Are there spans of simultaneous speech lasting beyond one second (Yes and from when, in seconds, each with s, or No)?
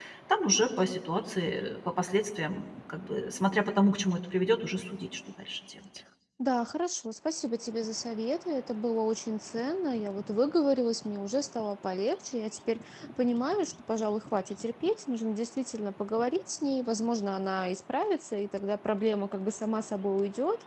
No